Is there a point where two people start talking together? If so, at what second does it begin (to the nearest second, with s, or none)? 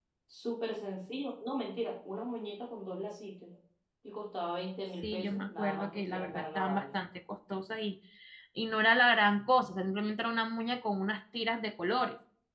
5 s